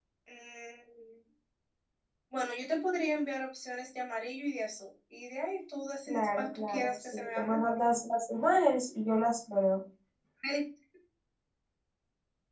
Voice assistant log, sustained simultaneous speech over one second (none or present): present